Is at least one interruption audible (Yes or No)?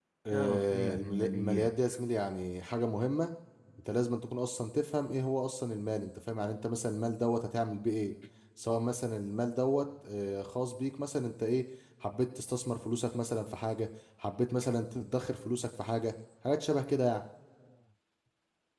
Yes